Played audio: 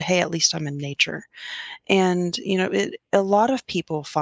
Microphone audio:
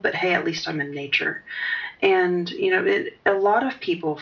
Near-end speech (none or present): none